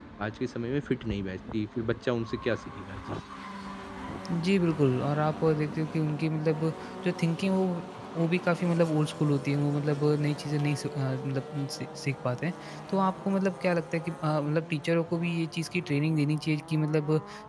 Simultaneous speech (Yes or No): No